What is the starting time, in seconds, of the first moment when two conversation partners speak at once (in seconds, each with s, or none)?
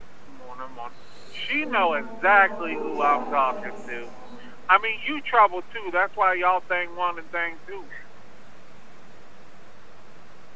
1.5 s